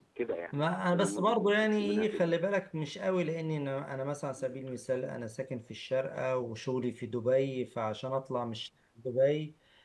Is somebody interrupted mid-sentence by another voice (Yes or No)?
Yes